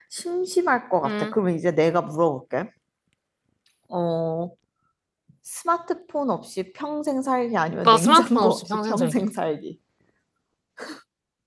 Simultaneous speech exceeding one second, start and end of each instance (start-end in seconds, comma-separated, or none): 7.8-9.2